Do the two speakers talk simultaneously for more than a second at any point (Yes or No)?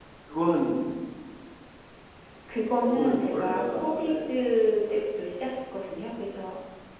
Yes